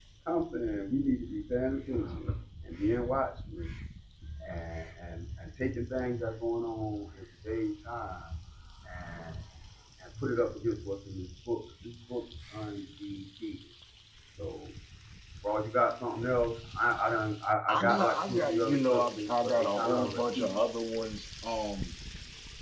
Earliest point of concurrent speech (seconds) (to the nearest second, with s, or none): 18 s